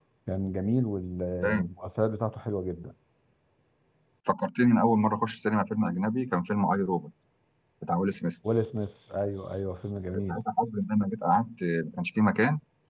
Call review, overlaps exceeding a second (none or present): none